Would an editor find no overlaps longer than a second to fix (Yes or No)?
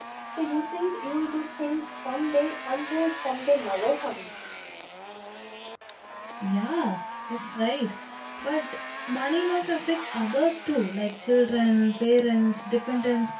Yes